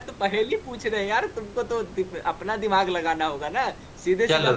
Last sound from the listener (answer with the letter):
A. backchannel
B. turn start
A